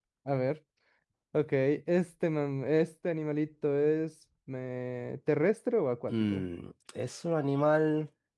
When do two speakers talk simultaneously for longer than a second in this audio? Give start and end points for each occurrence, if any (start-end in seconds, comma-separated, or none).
none